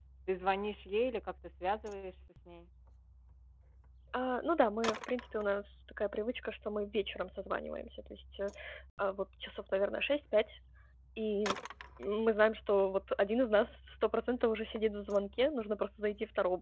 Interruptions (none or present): none